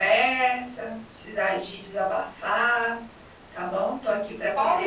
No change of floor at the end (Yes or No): No